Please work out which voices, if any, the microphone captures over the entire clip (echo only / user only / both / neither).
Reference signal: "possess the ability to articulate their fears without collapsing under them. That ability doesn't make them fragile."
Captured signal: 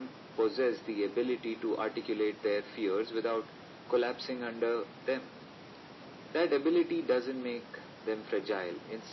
echo only